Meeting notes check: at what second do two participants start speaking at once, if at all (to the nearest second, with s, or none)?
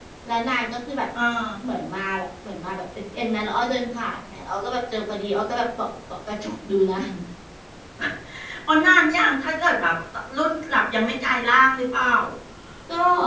none